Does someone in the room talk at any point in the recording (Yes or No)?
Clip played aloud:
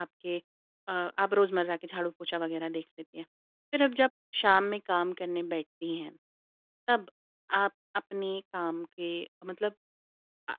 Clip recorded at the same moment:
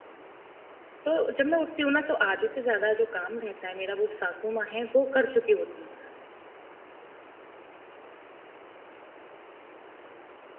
Yes